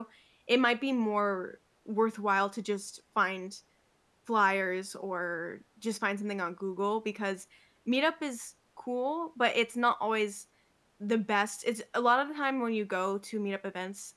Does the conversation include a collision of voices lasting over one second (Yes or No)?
No